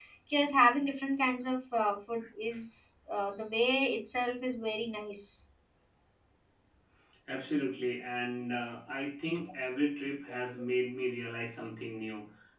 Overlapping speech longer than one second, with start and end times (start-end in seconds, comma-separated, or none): none